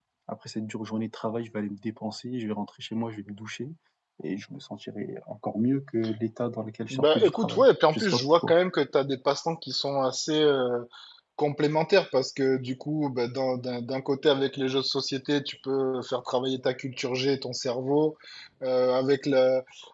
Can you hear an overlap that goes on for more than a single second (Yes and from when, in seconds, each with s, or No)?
Yes, from 6.9 s